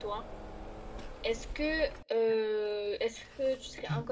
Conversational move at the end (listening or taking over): taking over